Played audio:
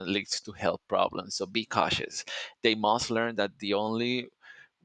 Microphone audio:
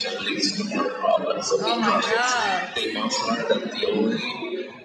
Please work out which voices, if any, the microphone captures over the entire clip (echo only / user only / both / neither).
both